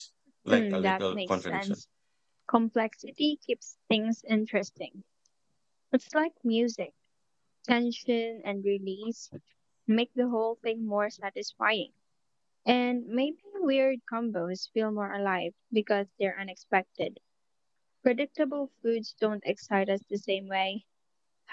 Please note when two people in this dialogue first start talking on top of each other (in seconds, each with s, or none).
0.5 s